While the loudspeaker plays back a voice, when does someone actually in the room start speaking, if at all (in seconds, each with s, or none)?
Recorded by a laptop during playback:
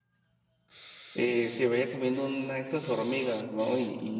1.1 s